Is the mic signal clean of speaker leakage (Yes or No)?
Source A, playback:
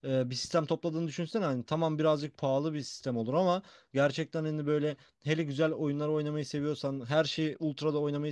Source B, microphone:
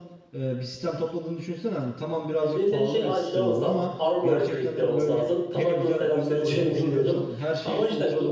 No